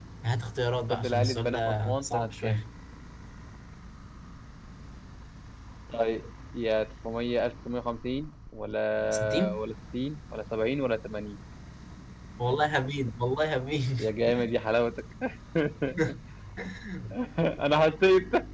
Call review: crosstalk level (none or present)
present